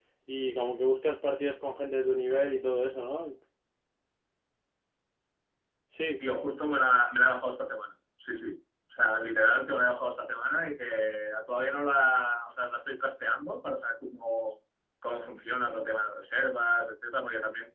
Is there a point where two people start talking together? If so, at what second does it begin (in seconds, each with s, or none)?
none